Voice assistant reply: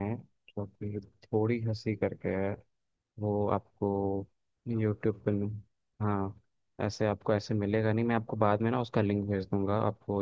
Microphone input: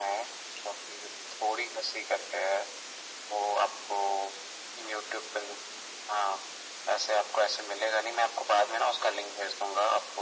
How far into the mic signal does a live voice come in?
none

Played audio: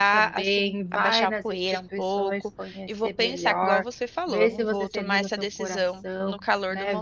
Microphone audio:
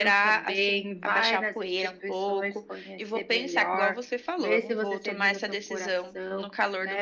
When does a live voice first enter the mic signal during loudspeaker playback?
none

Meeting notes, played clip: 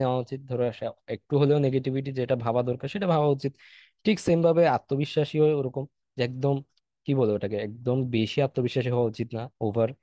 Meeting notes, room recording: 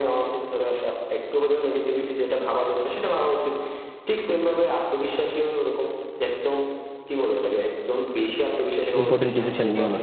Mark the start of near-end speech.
9.0 s

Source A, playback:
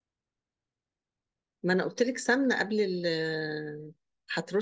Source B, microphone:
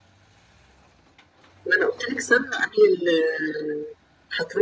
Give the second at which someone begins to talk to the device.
none

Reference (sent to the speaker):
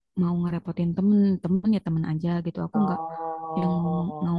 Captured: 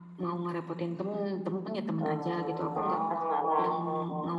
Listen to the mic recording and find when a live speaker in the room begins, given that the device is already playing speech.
2.0 s

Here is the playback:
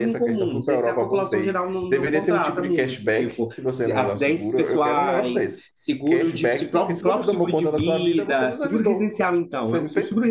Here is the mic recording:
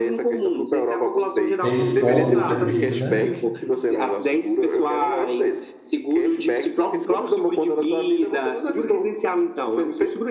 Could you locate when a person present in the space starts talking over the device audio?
1.6 s

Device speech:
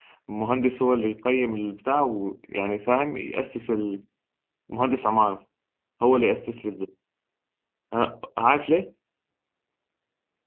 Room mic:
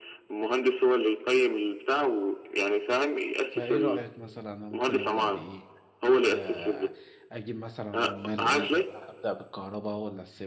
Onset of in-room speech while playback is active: 3.5 s

